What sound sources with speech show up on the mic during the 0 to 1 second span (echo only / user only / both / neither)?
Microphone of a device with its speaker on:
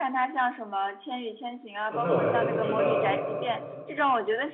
echo only